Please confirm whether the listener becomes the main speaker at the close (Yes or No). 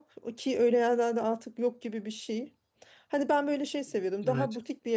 No